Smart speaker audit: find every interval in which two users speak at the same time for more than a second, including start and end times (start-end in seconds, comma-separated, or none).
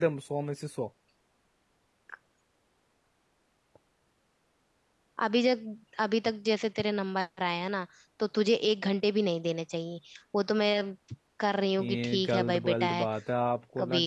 11.8-13.1